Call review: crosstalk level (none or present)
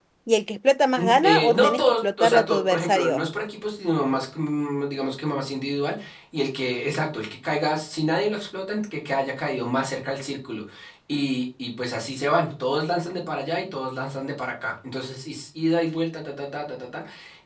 present